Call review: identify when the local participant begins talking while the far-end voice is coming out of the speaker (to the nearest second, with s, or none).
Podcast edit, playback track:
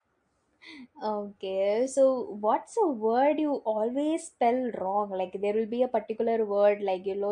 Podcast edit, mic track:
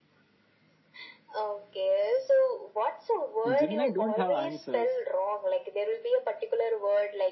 3 s